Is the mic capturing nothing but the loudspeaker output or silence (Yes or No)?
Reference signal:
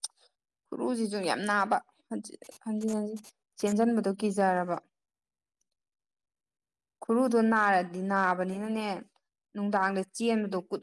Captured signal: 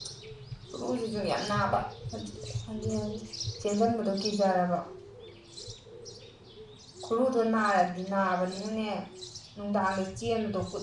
Yes